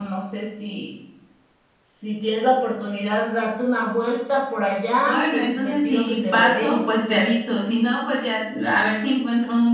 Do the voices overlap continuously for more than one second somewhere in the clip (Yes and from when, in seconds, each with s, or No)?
Yes, from 4.9 s